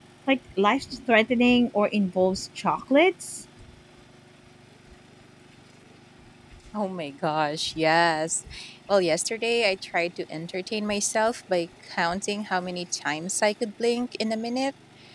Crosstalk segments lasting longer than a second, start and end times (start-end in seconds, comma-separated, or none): none